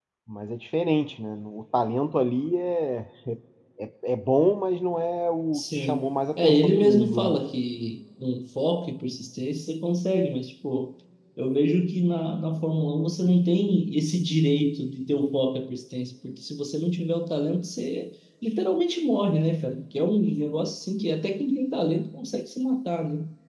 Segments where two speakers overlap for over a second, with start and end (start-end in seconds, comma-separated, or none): 5.5-7.4